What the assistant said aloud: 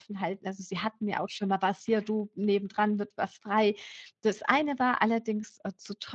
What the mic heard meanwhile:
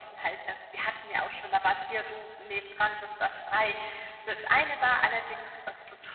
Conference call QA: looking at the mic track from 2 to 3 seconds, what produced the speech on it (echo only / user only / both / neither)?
echo only